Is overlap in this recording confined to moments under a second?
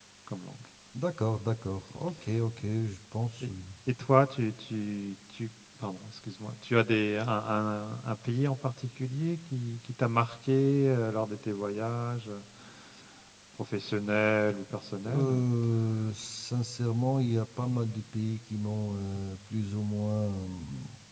Yes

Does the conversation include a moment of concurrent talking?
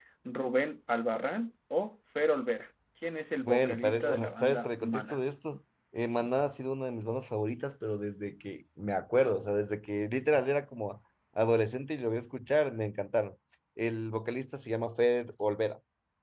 Yes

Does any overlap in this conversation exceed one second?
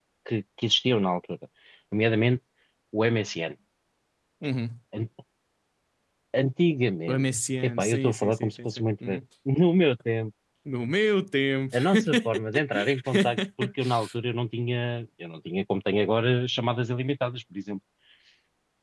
Yes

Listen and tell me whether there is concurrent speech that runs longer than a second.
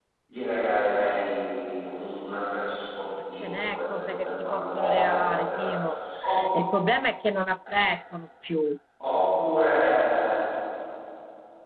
Yes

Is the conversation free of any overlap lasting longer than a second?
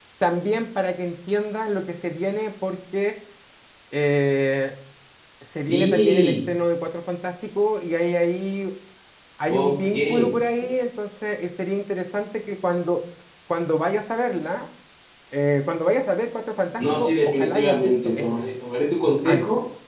No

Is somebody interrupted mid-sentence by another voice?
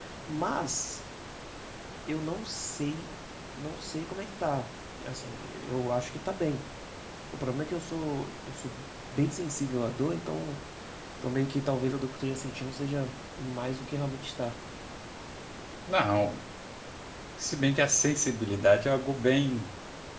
No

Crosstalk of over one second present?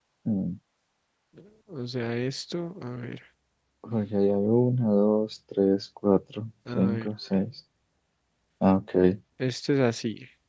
No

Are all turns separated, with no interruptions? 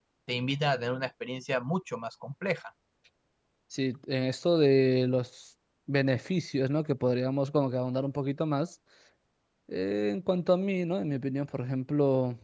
Yes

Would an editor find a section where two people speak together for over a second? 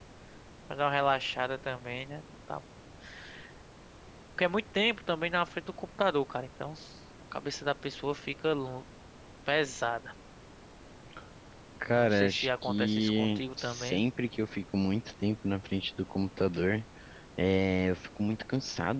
Yes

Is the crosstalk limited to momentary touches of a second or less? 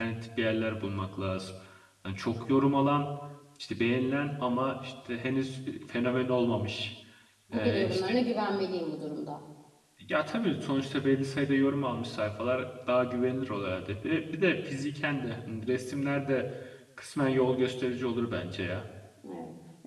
Yes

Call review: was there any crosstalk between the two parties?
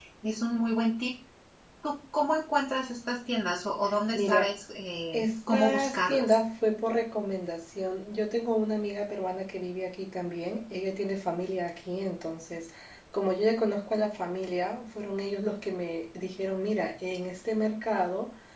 Yes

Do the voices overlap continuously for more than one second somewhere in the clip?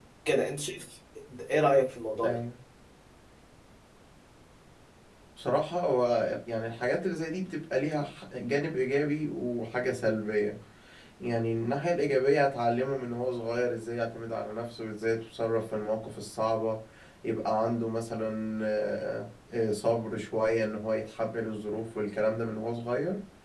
No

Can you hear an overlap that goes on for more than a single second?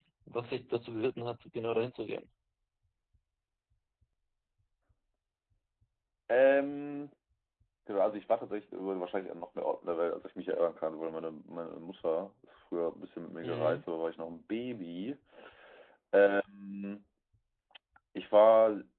No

